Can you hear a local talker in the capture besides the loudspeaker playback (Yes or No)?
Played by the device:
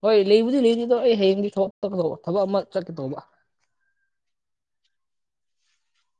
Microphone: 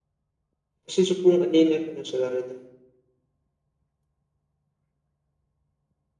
Yes